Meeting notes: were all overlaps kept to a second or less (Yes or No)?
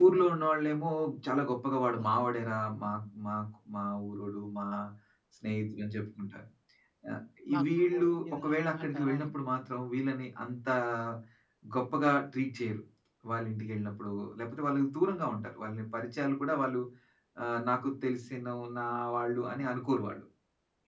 No